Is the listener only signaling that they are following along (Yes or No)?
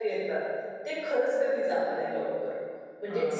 No